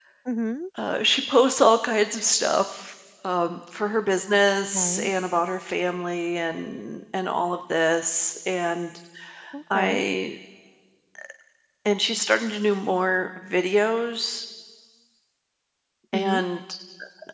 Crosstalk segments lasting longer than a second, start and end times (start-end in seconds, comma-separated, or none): none